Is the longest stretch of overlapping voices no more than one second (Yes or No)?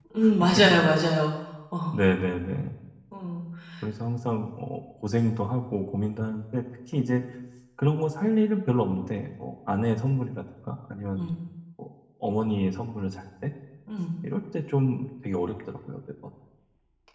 Yes